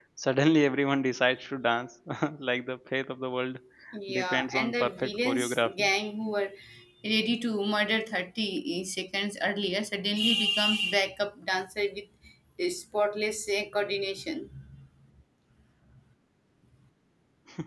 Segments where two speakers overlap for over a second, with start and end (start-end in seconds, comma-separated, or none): 4.2-5.9